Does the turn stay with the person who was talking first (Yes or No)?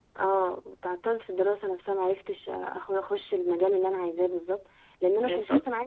Yes